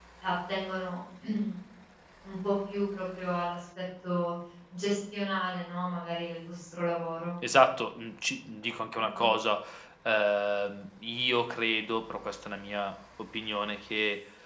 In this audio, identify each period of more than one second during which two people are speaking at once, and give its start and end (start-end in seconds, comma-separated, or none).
none